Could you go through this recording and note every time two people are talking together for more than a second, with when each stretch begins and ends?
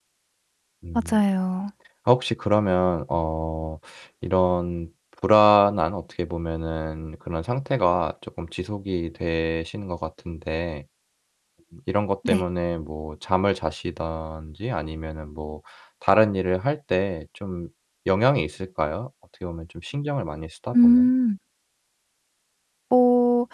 none

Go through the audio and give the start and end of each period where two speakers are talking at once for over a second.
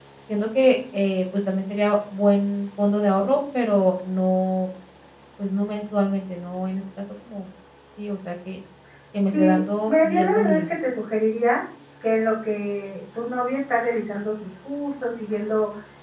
9.3-10.7

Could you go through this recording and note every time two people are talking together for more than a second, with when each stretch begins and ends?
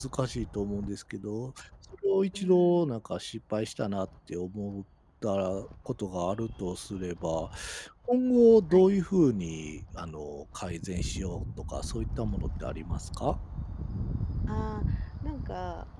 none

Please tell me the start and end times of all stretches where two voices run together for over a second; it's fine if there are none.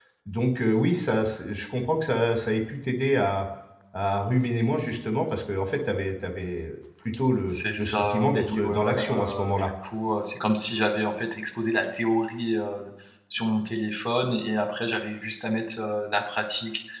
7.5-9.7

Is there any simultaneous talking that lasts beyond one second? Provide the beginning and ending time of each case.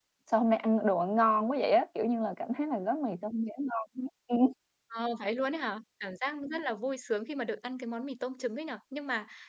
none

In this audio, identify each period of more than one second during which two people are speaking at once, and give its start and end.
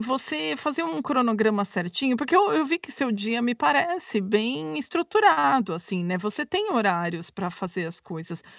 none

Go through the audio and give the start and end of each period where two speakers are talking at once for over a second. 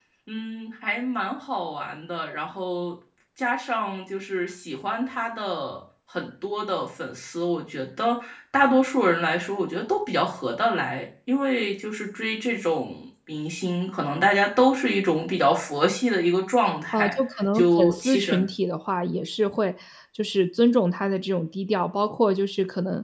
16.9-18.5

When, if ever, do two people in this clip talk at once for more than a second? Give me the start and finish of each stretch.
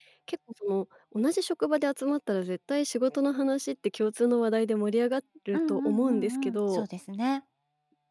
5.5-6.8

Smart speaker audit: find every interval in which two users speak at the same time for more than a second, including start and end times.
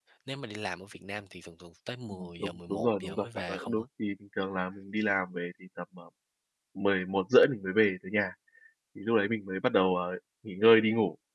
2.1-3.8

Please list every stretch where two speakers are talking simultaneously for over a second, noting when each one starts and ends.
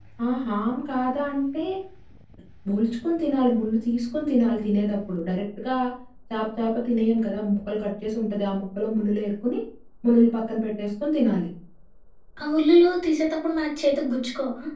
none

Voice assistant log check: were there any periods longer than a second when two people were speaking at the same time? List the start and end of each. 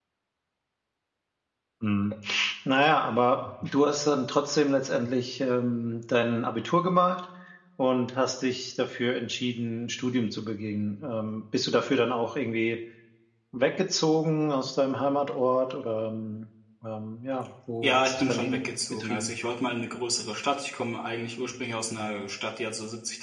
17.8-19.3

